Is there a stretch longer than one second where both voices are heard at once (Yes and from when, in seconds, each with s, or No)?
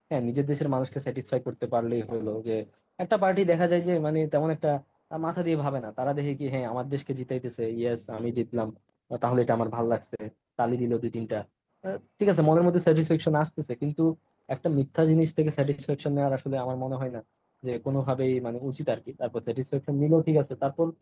No